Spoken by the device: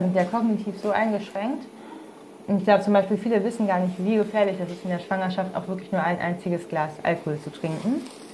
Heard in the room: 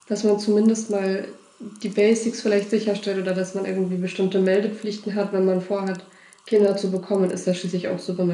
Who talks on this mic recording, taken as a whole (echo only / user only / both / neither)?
user only